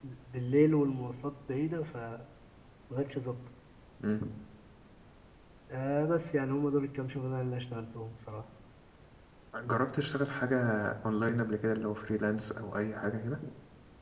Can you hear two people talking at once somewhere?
No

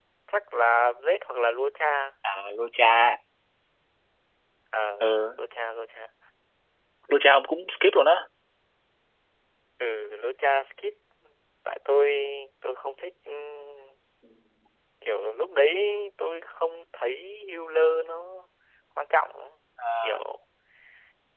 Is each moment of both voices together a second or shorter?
Yes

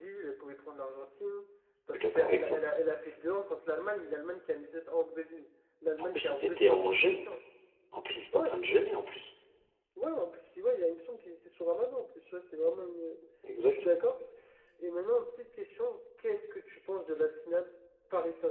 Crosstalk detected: Yes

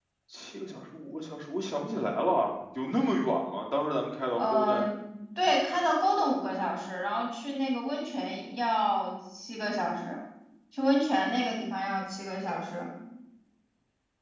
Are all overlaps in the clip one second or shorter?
Yes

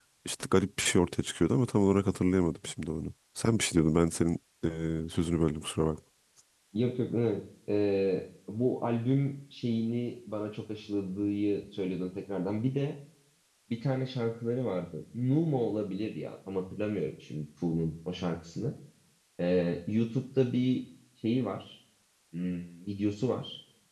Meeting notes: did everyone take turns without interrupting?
Yes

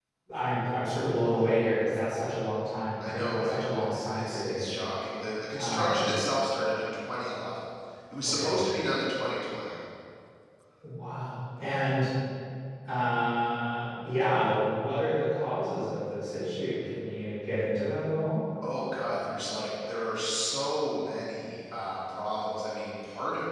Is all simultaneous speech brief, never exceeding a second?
No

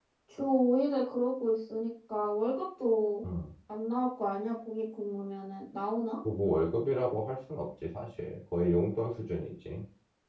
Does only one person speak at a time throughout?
Yes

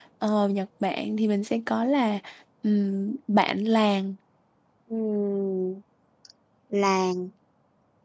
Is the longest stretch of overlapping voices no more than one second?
Yes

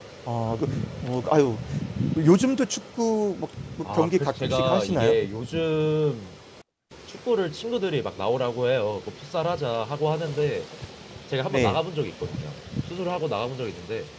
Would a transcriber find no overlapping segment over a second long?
No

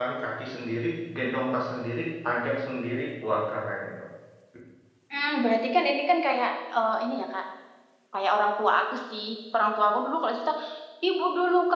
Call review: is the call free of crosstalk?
Yes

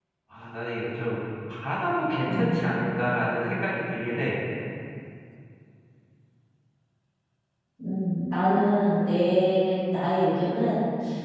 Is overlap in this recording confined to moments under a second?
Yes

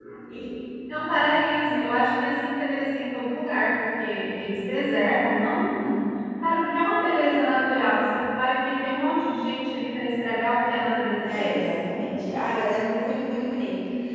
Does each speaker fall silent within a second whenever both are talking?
Yes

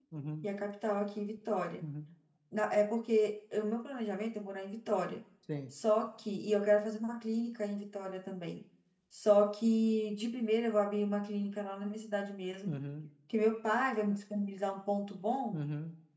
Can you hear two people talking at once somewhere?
No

